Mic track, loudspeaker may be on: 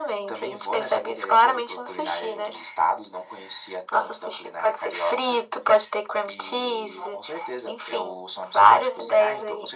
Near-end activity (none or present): none